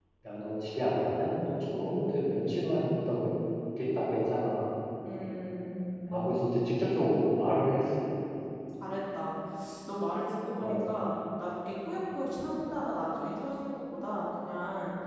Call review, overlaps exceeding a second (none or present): none